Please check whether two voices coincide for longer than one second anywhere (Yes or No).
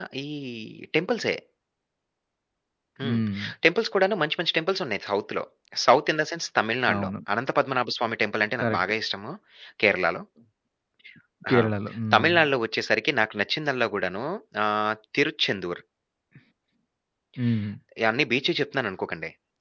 No